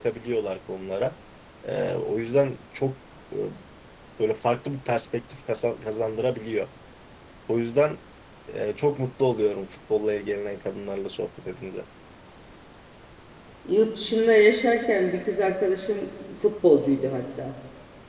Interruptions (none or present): none